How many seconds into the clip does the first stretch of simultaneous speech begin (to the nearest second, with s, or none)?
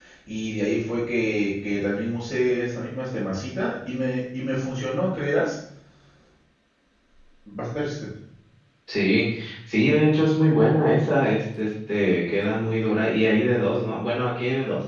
none